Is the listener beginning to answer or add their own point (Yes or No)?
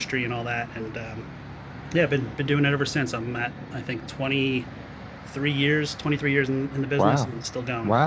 Yes